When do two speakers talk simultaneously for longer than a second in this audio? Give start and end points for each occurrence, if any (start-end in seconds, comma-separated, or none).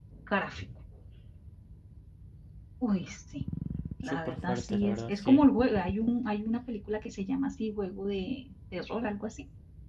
4.0-5.4